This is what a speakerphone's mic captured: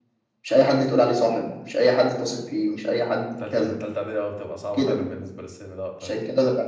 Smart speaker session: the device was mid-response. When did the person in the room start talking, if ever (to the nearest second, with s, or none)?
3 s